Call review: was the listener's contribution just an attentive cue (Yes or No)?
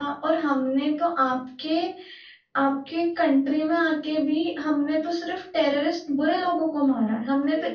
Yes